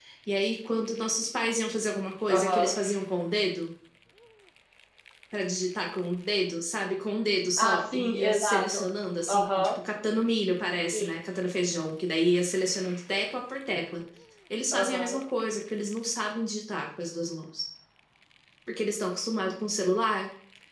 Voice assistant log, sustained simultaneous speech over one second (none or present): present